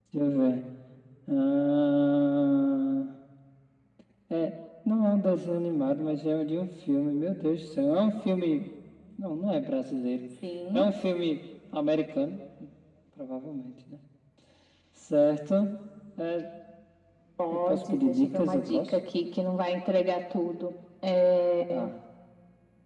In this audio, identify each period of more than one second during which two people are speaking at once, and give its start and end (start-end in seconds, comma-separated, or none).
17.5-18.9